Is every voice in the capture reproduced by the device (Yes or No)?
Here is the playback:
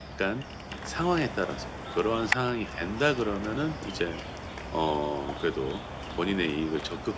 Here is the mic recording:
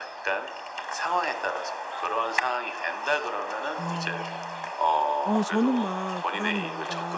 No